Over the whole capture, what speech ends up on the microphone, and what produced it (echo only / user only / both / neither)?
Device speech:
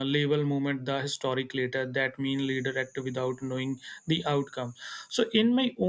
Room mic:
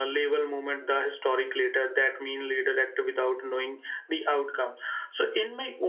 echo only